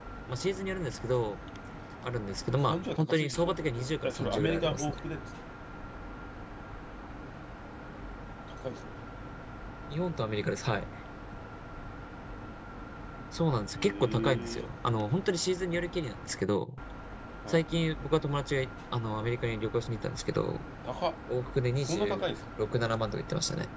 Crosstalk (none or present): present